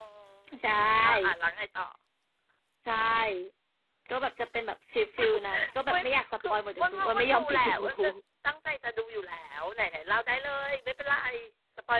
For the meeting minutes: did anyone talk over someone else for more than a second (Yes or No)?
Yes